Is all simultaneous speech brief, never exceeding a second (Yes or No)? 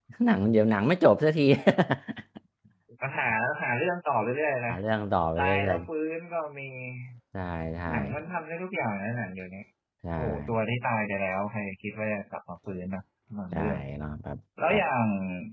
Yes